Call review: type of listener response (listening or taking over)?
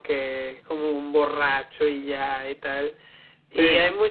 listening